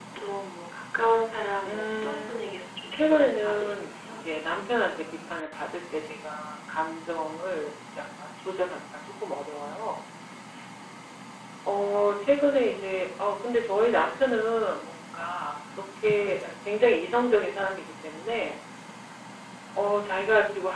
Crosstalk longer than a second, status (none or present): present